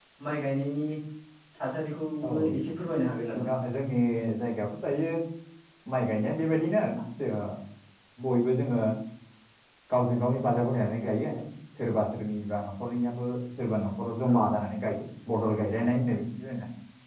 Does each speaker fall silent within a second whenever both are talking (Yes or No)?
Yes